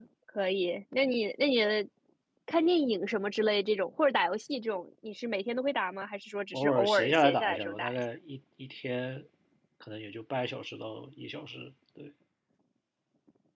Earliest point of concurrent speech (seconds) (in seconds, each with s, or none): 6.5 s